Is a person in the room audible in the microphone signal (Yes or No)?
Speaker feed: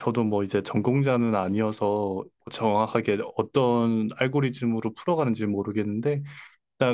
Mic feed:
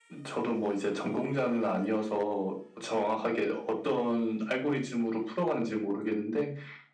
No